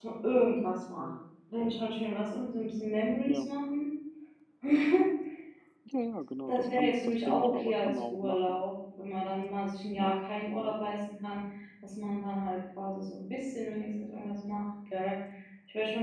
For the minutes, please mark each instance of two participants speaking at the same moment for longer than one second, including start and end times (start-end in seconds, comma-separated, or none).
6.5-8.6